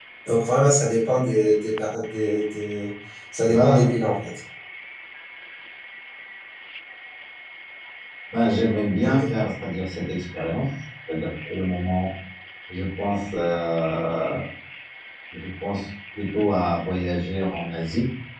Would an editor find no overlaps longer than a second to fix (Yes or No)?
Yes